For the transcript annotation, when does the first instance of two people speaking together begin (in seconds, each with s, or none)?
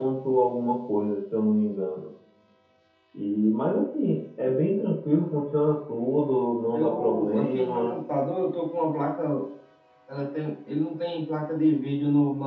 6.7 s